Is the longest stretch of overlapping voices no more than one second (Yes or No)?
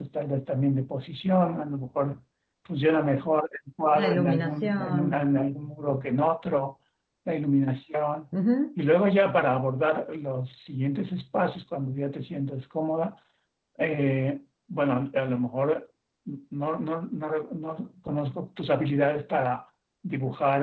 No